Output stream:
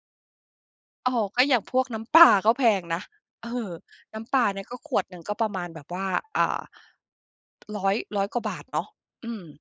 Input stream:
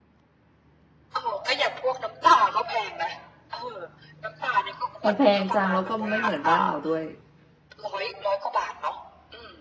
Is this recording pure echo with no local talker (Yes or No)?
No